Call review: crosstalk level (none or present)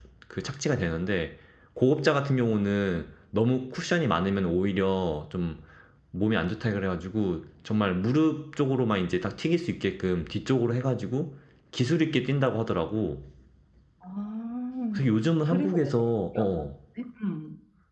present